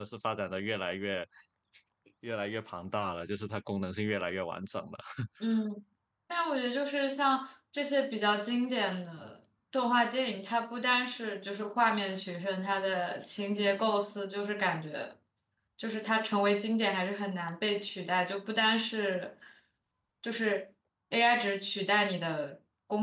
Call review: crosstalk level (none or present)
none